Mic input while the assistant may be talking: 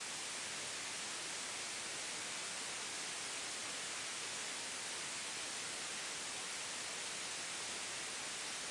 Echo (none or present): none